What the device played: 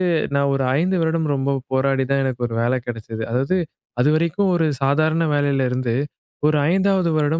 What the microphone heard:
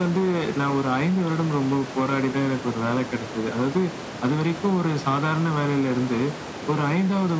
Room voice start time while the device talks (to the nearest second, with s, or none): none